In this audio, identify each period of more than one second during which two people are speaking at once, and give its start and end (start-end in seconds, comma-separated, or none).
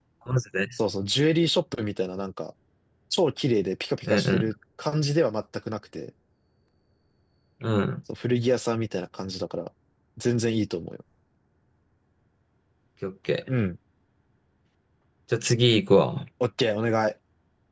none